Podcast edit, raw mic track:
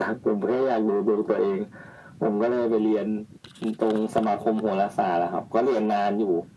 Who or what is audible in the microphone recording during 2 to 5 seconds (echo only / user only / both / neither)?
echo only